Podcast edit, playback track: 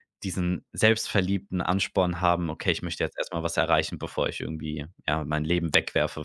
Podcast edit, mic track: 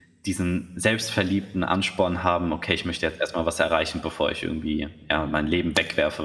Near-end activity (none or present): present